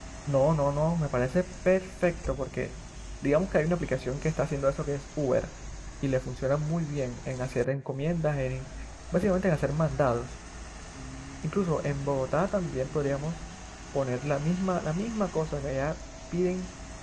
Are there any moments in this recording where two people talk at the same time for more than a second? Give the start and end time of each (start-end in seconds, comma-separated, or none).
none